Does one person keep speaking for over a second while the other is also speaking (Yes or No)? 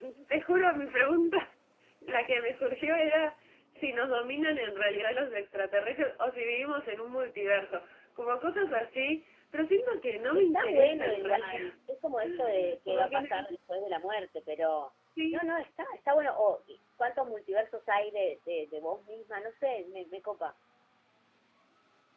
Yes